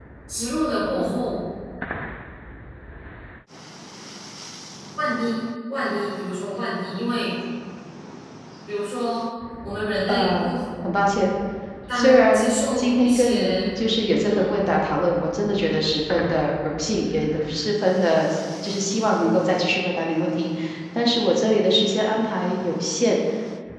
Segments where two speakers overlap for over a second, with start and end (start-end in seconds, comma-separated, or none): 11.9-13.7